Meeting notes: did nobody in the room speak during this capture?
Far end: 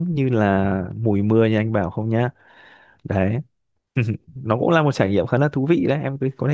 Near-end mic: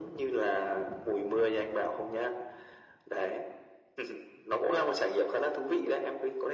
Yes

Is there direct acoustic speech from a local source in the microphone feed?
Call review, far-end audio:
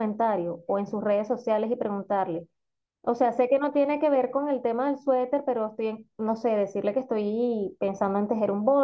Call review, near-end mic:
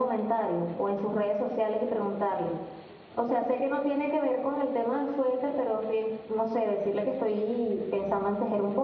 No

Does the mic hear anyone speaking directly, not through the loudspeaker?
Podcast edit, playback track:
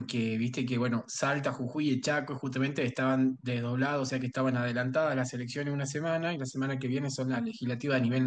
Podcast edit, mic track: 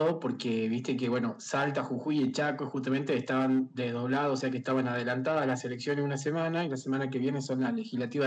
No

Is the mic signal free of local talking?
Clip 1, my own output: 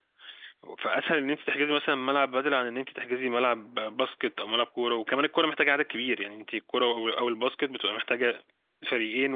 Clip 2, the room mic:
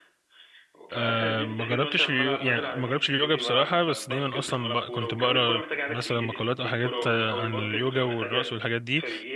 No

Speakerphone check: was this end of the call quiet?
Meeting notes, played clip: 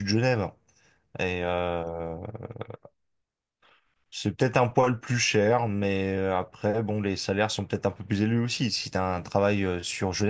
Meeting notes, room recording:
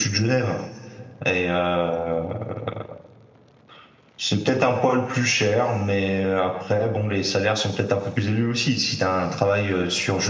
Yes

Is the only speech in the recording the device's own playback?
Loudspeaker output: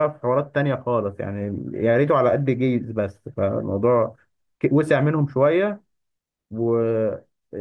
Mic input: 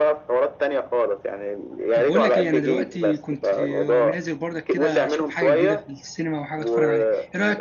No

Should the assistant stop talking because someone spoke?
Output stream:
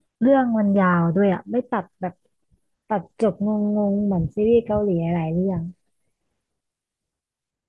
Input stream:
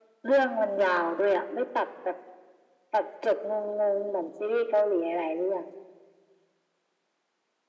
No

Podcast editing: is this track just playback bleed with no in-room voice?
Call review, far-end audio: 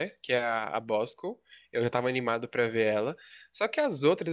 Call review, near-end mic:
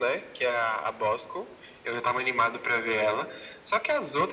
Yes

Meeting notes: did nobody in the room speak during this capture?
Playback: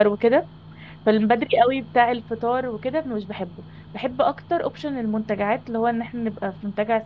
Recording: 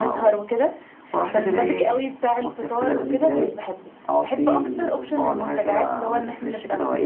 No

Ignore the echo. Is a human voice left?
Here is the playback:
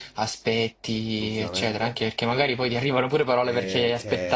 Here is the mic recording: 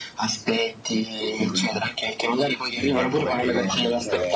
Yes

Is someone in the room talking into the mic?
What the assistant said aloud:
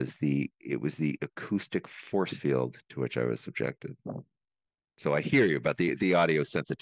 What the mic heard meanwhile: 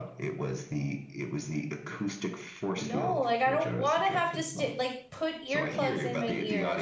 Yes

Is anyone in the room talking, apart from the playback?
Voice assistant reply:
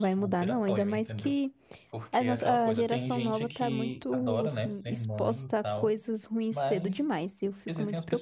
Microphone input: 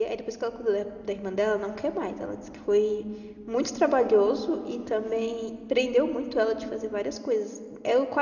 Yes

